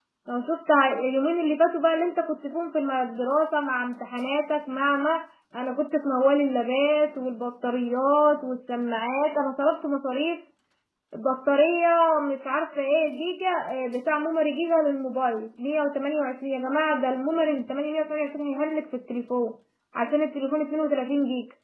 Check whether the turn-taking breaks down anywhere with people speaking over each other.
No

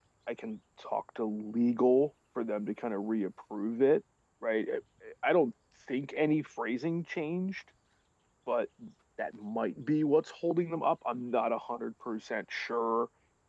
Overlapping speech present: No

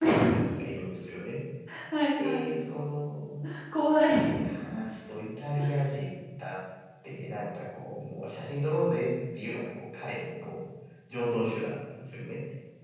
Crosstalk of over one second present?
No

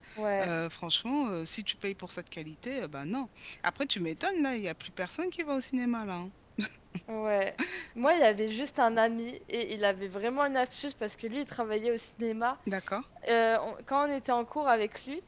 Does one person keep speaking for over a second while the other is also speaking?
No

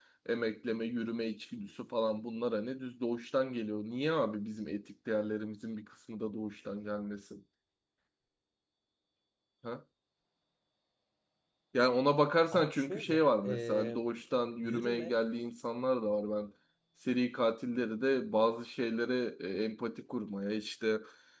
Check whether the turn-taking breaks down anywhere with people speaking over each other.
Yes, from 12.5 s

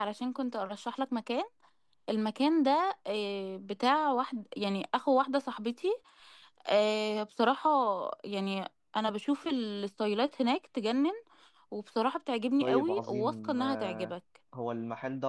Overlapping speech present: Yes, from 12.6 s

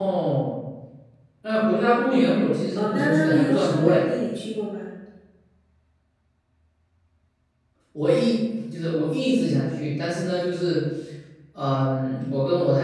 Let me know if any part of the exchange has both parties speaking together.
Yes, from 2.8 s

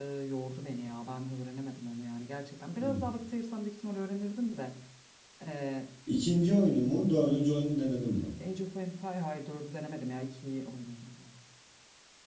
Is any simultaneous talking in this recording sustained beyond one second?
No

